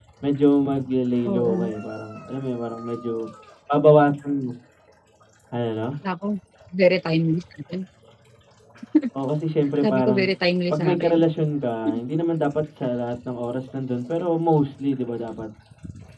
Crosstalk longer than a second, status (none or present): none